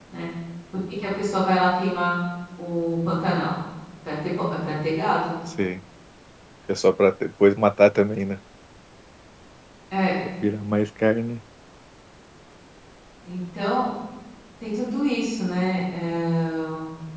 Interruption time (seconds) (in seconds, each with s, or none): none